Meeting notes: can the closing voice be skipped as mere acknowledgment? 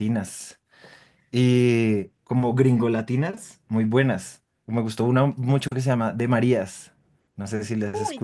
No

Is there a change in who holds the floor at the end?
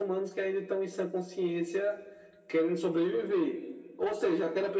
No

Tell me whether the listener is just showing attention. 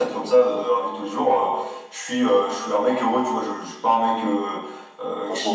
Yes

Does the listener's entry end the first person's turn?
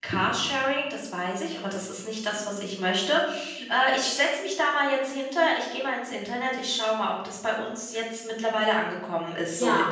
Yes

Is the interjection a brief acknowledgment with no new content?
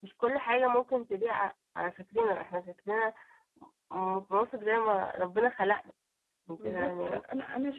No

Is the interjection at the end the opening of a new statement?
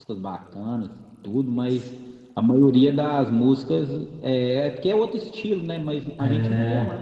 No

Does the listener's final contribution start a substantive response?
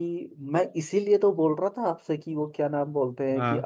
No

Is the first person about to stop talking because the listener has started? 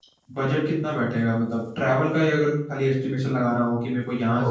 No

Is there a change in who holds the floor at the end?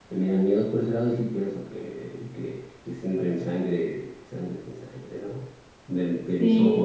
No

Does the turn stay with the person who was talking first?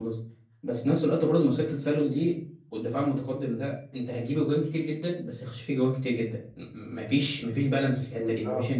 Yes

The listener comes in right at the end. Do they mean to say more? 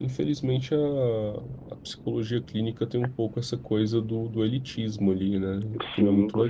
Yes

